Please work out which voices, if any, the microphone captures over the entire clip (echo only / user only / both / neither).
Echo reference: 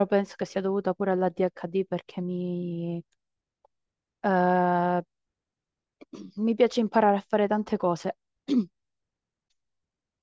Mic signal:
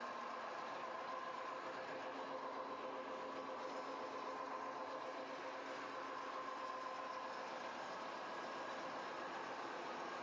neither